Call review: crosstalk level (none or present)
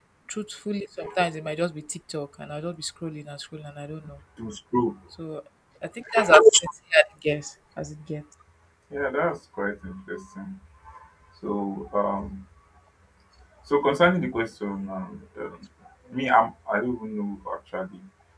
none